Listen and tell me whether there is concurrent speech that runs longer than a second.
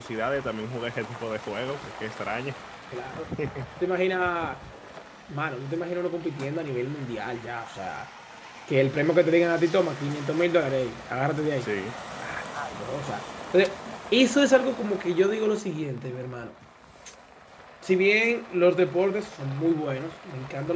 No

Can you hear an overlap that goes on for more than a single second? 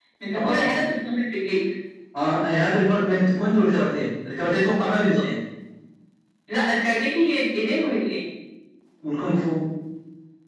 No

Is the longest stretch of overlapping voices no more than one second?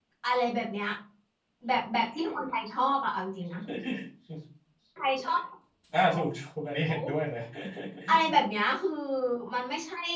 Yes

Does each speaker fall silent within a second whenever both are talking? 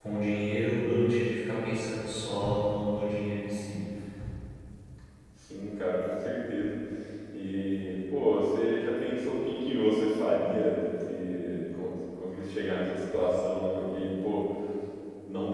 Yes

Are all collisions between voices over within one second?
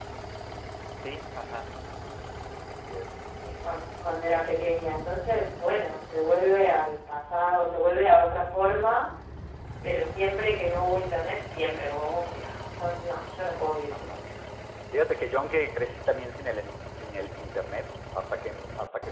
Yes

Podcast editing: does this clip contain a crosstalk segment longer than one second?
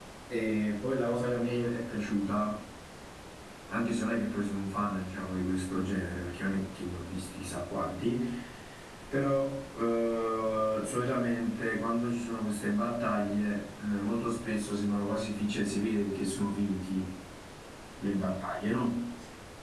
No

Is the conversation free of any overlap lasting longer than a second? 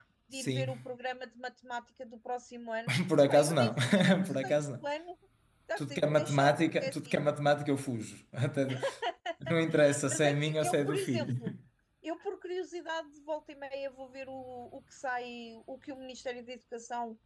No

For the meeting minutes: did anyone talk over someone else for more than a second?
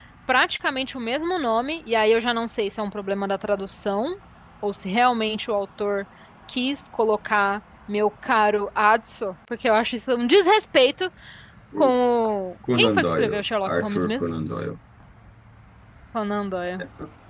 Yes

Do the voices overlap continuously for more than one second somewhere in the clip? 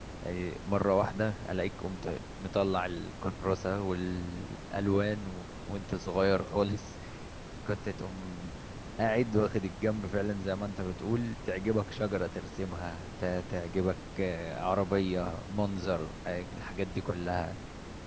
No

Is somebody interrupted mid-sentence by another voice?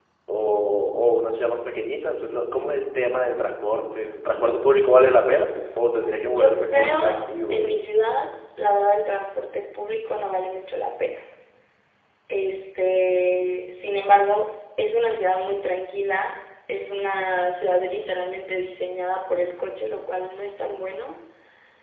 Yes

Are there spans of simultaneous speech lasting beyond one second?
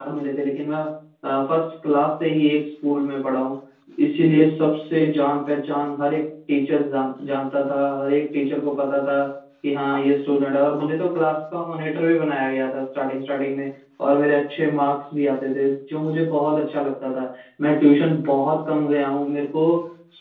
No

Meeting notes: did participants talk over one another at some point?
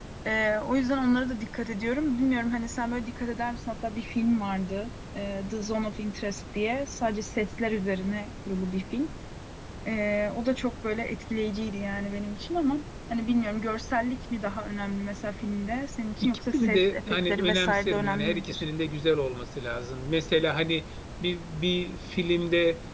Yes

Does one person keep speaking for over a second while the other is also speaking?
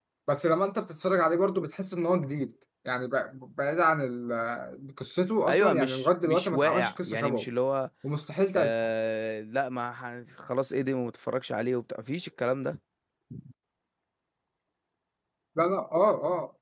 Yes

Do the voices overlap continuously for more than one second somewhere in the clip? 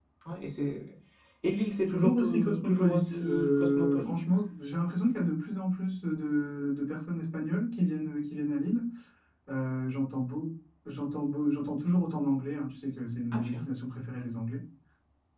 Yes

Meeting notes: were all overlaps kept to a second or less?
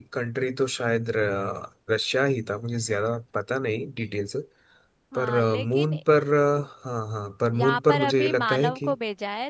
No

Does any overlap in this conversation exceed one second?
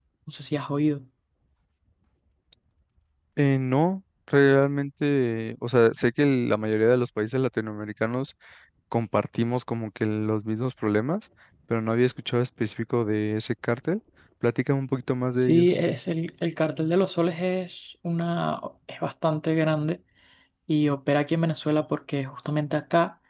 No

